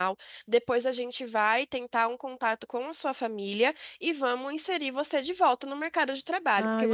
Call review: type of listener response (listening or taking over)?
taking over